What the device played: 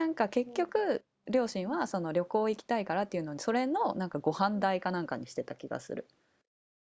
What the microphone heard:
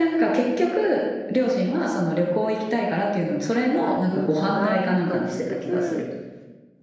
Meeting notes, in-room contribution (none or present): present